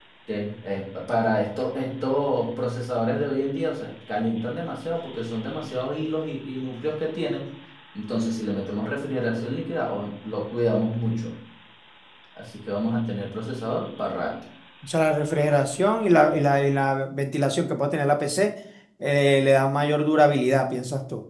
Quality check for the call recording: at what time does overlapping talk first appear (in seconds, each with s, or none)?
none